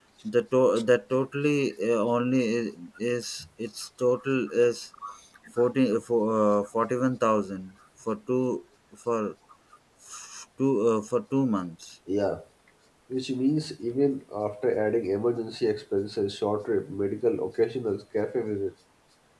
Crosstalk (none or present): none